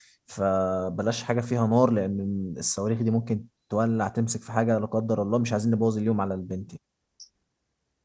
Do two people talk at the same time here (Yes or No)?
No